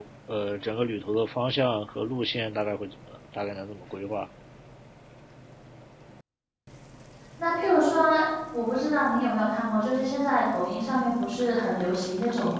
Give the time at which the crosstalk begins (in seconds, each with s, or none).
none